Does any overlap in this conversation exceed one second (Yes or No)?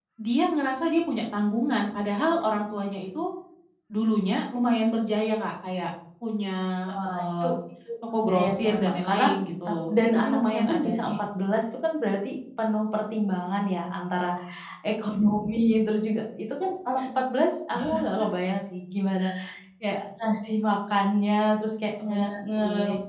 Yes